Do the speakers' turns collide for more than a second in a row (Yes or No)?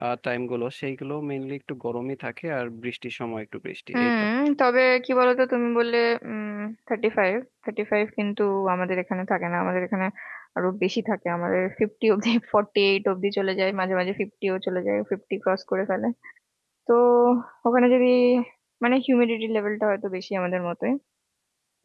No